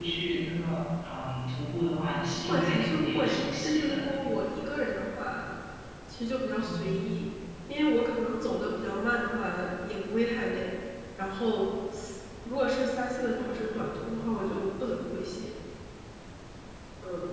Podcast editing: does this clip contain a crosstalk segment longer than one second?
Yes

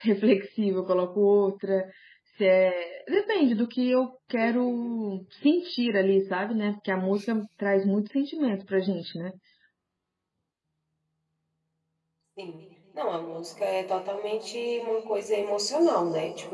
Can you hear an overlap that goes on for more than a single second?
No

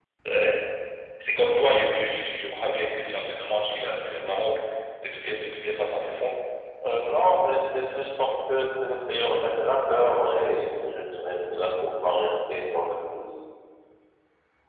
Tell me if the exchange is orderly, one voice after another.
Yes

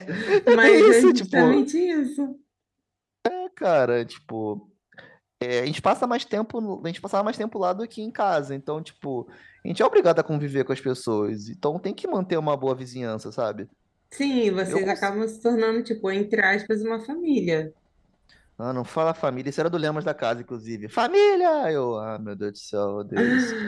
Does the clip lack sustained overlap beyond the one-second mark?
No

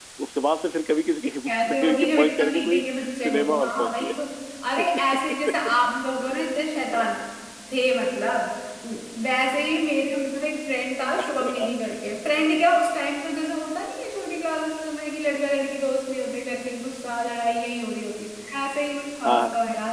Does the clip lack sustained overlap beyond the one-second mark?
No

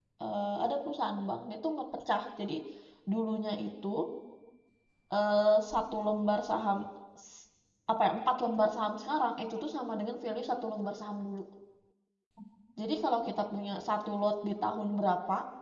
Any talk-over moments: No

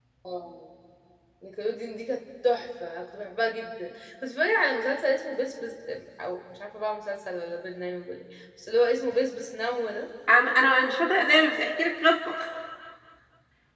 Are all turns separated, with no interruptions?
Yes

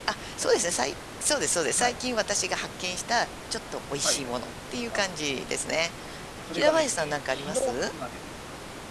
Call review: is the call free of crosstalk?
No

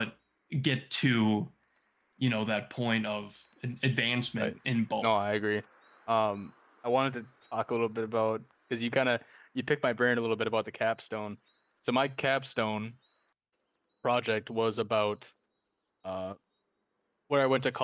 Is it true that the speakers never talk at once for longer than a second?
Yes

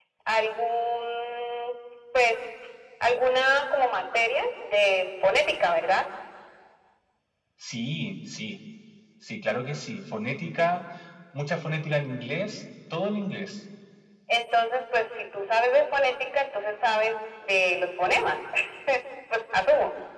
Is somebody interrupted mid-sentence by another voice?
No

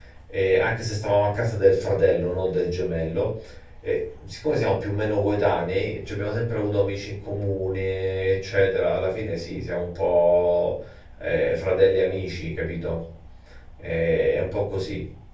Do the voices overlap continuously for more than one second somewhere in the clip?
No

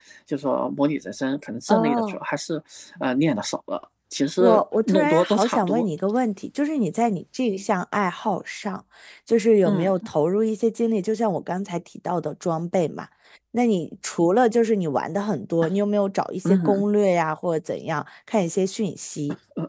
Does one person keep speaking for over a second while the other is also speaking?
Yes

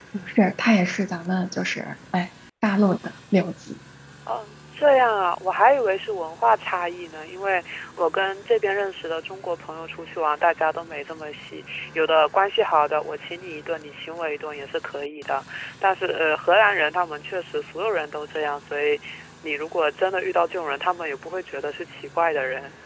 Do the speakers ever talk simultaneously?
No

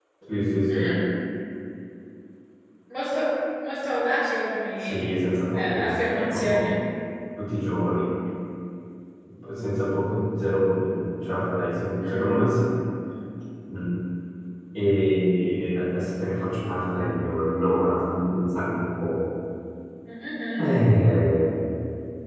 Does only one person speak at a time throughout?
No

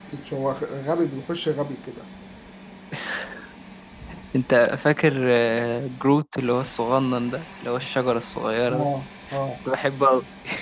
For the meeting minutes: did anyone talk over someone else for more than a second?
No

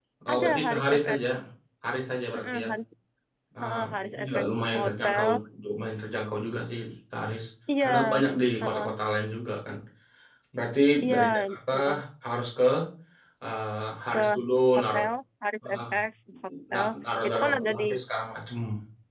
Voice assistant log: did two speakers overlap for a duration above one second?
Yes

